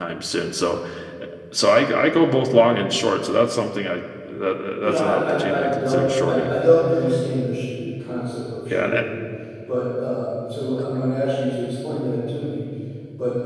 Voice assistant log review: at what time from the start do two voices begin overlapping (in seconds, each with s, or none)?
4.8 s